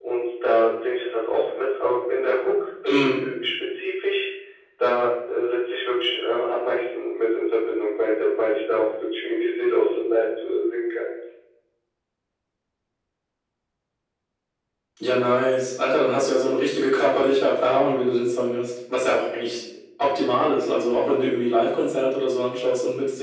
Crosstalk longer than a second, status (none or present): none